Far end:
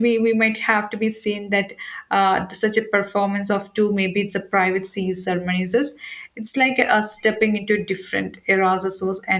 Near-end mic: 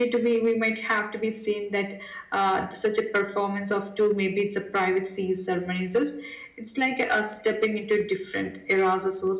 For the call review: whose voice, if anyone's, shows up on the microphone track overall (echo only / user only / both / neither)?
echo only